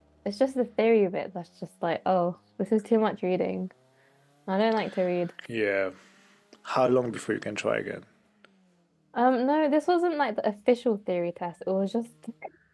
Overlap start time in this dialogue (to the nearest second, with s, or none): none